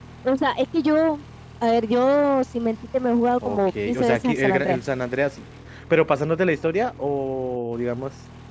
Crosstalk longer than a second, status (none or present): present